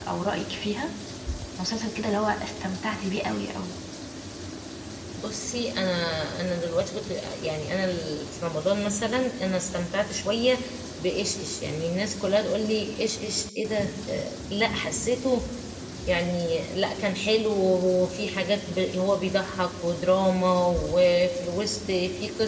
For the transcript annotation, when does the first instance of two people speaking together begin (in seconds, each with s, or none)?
none